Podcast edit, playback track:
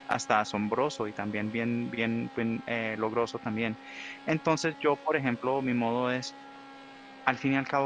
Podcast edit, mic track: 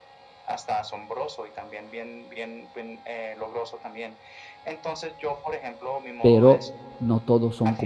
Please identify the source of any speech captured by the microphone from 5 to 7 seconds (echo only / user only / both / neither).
both